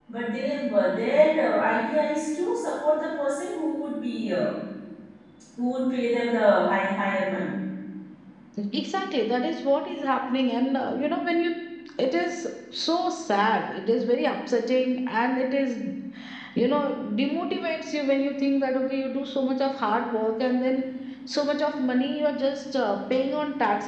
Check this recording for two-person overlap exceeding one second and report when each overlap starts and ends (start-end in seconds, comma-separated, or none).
none